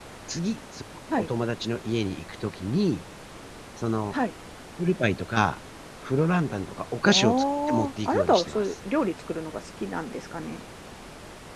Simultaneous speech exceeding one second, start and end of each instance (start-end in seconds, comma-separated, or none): 7.1-8.6